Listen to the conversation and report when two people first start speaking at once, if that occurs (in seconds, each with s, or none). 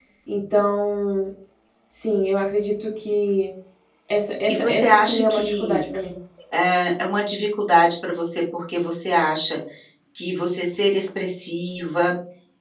4.5 s